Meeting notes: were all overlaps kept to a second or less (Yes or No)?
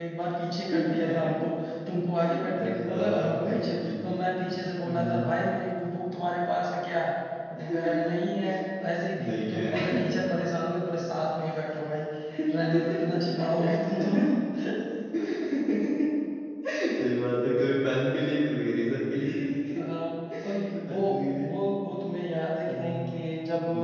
No